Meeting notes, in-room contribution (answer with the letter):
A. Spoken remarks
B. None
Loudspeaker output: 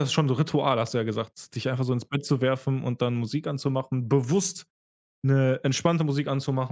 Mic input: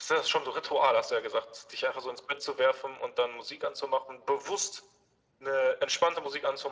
B